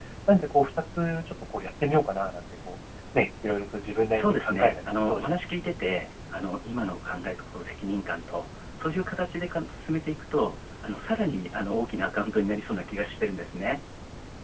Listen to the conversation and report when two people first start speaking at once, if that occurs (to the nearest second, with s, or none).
4 s